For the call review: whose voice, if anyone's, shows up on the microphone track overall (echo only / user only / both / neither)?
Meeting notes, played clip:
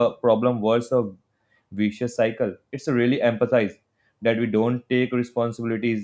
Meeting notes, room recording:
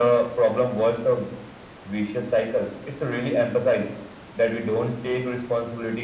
echo only